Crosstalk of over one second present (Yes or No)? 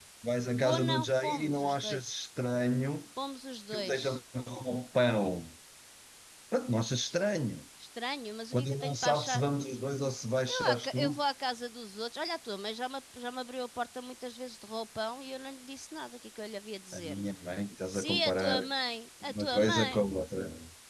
Yes